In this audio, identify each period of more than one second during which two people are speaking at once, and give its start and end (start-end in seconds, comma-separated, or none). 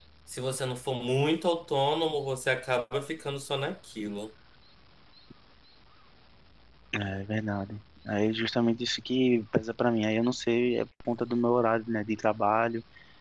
none